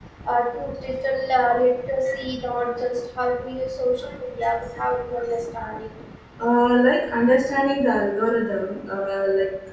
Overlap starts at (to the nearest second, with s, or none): none